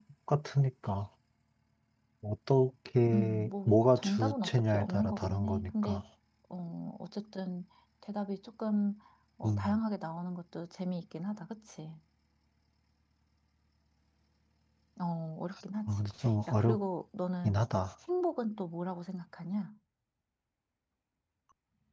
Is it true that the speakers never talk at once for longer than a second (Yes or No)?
No